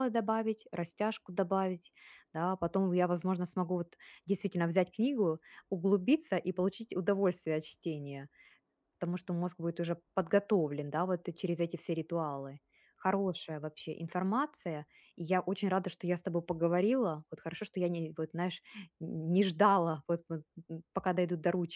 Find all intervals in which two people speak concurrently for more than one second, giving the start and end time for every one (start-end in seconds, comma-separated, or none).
none